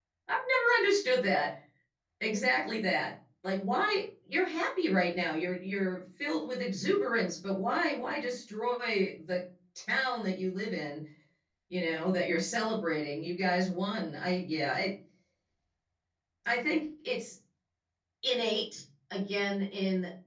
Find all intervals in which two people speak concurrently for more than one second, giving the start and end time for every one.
none

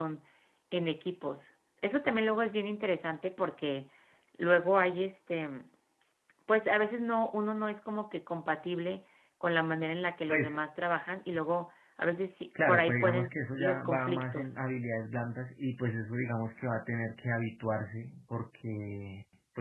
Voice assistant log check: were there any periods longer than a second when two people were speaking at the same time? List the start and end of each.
12.7-14.5

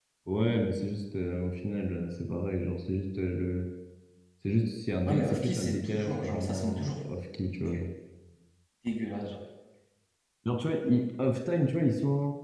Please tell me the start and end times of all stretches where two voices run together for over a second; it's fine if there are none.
5.0-6.9

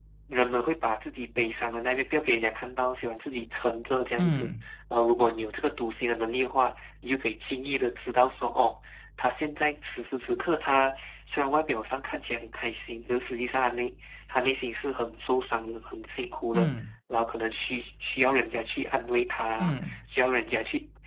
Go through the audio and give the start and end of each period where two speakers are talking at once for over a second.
none

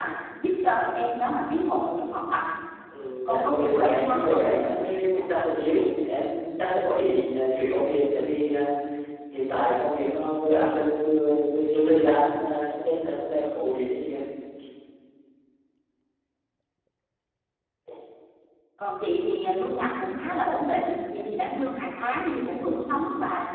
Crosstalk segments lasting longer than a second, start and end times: 3.2-4.5

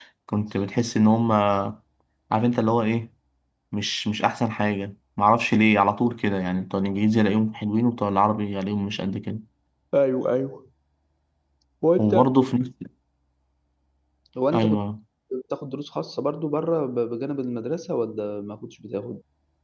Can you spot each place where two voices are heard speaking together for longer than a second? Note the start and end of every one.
none

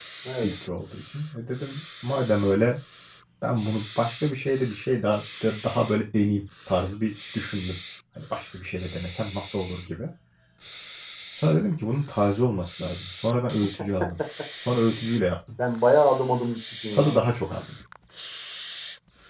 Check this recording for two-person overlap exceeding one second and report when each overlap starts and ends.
none

